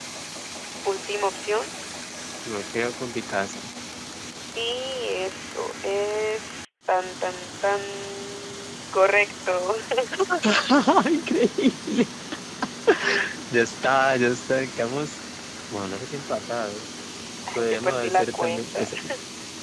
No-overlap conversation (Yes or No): No